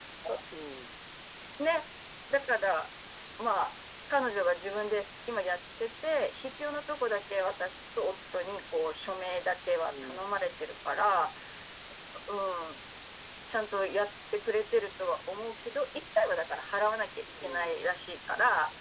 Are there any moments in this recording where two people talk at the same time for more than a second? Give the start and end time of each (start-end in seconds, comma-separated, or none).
none